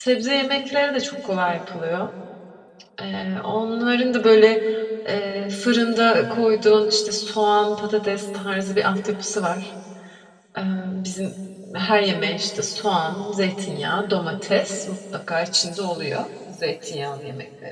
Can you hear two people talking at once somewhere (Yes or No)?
No